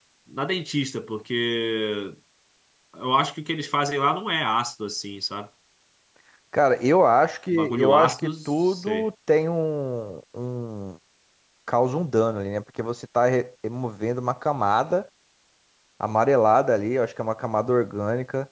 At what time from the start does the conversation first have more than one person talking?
8 s

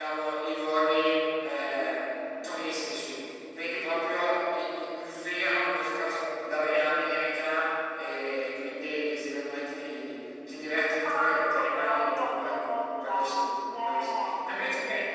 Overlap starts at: 11 s

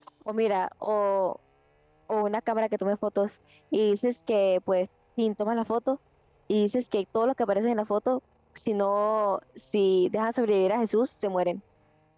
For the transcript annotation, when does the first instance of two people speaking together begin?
none

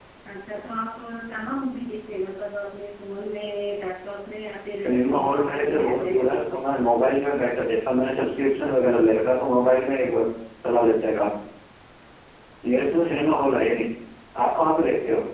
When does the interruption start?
5 s

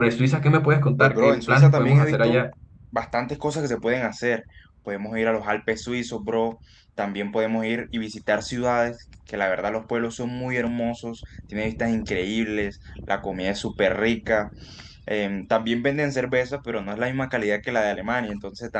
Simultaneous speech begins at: 1 s

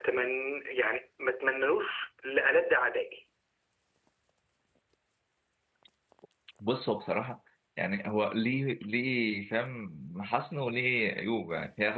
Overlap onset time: none

